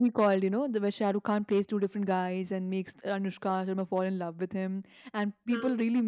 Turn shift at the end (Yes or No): No